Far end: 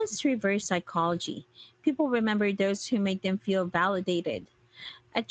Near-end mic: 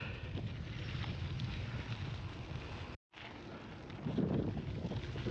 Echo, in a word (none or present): none